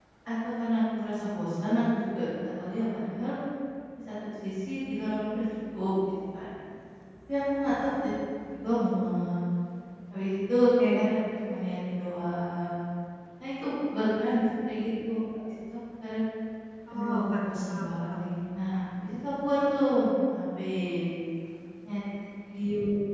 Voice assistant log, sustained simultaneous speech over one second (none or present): present